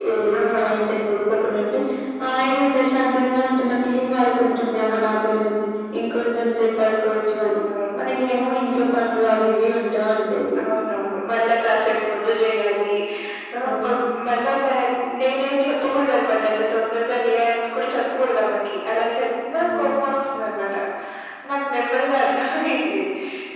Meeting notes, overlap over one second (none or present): none